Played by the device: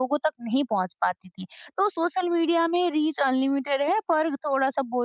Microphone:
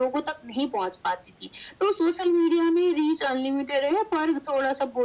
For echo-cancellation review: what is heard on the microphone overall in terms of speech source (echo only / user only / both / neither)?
echo only